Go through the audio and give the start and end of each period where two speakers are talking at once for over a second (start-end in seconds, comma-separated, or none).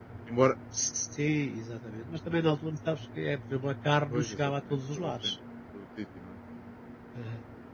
4.1-5.3